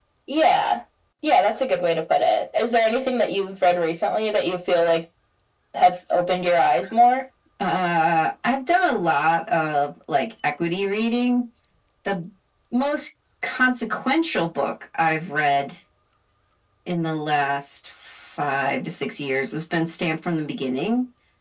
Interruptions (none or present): none